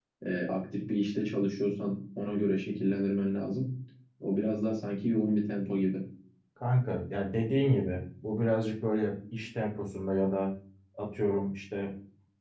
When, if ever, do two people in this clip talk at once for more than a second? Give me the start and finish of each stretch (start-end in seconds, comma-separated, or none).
none